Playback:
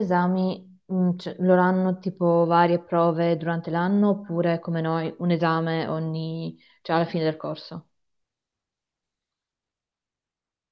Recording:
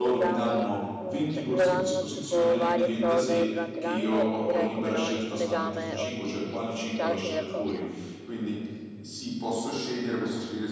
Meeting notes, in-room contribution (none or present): present